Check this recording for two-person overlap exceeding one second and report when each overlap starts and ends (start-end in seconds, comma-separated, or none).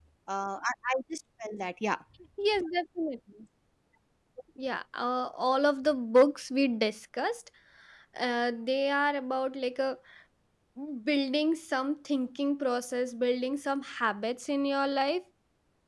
none